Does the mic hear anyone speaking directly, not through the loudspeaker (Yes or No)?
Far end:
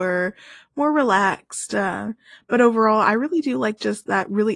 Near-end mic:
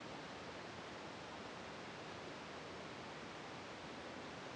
No